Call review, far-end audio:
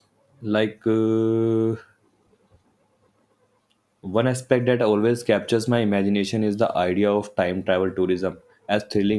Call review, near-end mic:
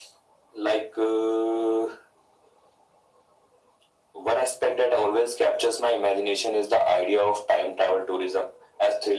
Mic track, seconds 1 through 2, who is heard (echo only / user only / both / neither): echo only